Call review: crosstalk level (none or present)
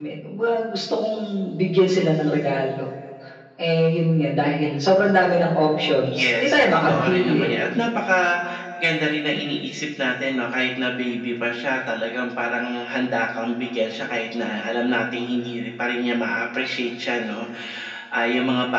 present